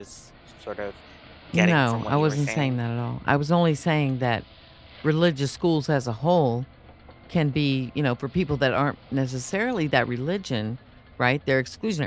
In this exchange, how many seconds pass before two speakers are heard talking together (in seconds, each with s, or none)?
1.5 s